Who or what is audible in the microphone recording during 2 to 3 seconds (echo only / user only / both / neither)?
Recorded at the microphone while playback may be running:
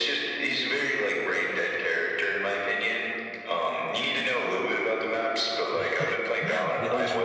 echo only